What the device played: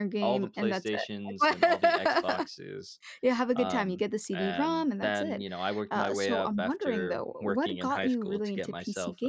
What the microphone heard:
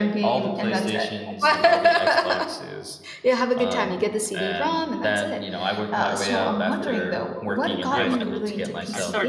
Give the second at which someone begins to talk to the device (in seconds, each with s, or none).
7.9 s